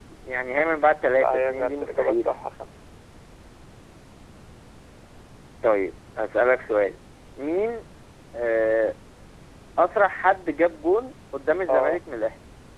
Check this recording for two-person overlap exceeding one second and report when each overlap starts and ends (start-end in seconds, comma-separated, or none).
1.1-2.3